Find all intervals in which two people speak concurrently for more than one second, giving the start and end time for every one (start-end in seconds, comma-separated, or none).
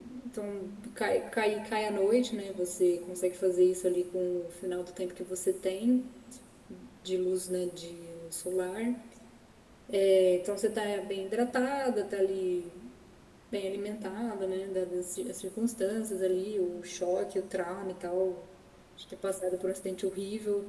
none